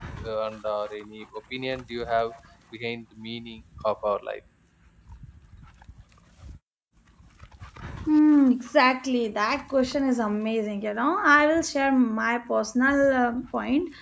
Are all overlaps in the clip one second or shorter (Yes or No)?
Yes